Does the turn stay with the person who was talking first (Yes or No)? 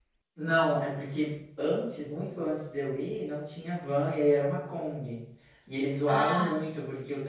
Yes